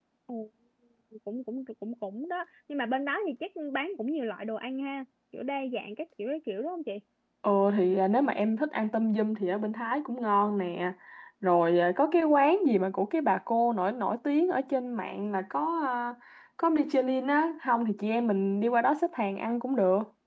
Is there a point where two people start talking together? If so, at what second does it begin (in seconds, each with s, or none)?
none